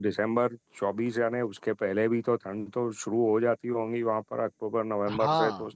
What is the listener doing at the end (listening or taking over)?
taking over